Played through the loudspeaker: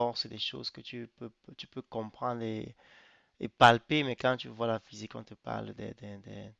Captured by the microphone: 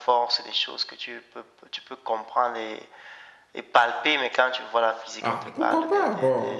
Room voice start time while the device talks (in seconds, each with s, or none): 5.2 s